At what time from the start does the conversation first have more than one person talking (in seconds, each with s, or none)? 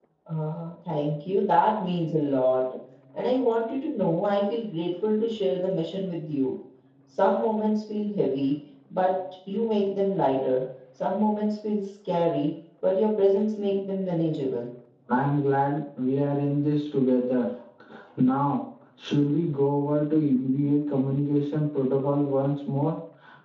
none